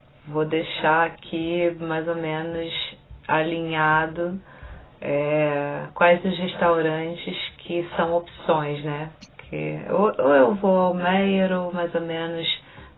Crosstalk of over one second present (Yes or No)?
No